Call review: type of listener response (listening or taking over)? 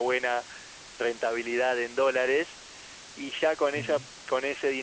listening